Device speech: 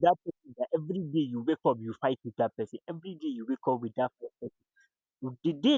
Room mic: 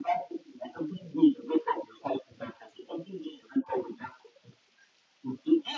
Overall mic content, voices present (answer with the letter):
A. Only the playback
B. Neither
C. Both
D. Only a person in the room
A